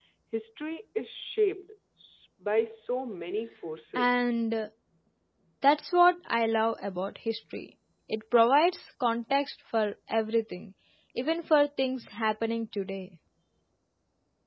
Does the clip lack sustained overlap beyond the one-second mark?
Yes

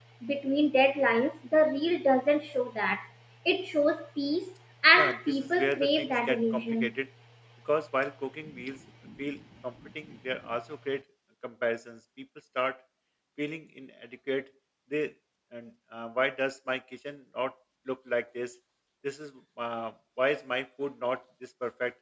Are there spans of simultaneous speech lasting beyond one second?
Yes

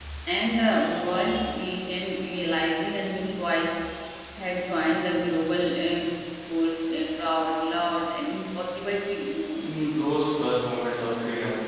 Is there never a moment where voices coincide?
Yes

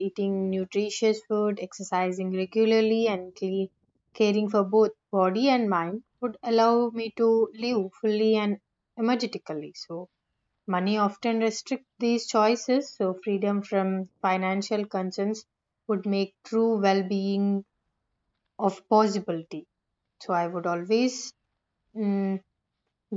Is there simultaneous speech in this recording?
No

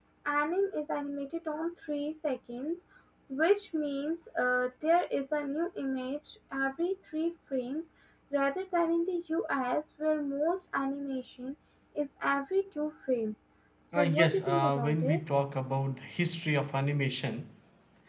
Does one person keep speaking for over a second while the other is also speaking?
Yes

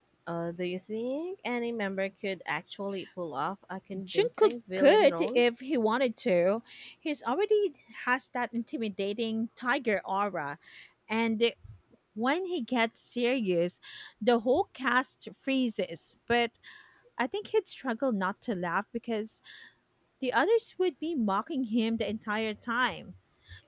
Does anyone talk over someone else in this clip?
Yes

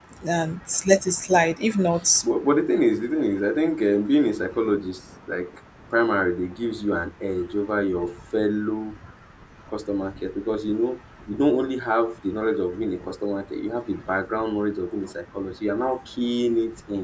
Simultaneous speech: No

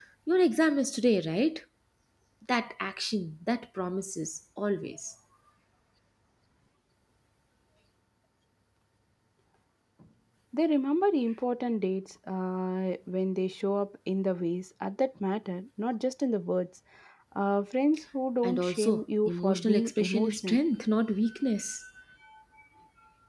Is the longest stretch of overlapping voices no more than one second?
No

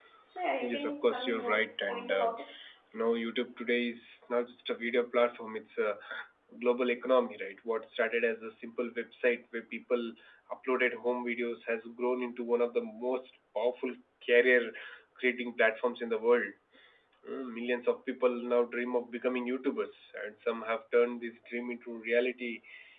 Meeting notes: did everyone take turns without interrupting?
No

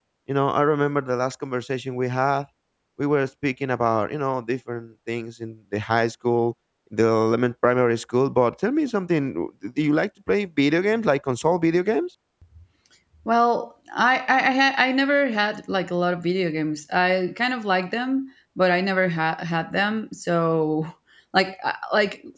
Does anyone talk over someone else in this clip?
No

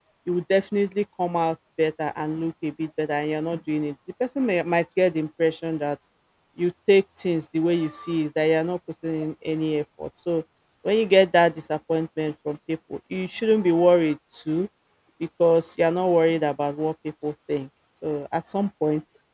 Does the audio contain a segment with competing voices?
No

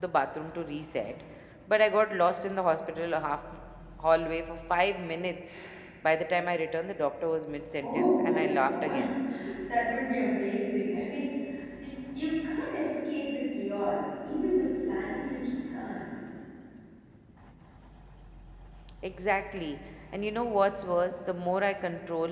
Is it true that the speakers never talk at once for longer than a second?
No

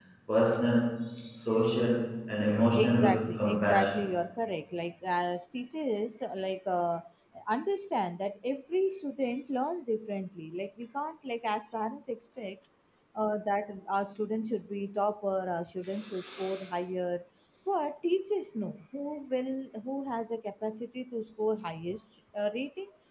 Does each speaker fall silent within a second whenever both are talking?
No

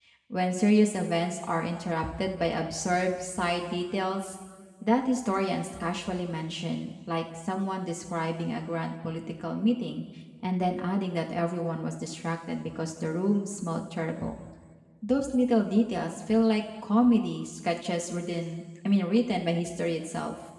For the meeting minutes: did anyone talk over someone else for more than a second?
No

